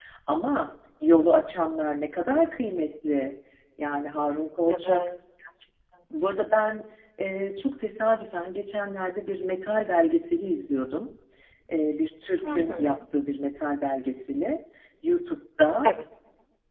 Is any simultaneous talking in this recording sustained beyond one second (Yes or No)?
No